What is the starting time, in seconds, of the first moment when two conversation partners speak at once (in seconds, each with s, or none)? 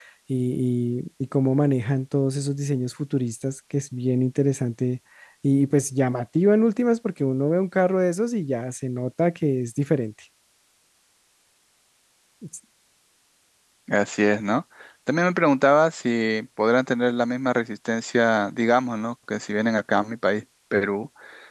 none